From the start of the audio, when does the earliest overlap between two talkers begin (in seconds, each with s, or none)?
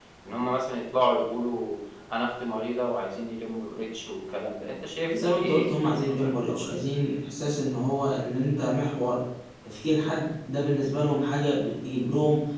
5.1 s